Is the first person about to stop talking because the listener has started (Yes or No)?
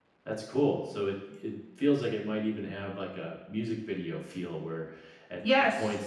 No